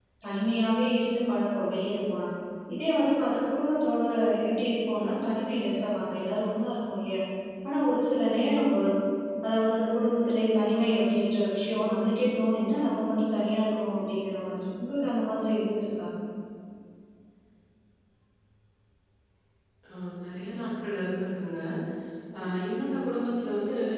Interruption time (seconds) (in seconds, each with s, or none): none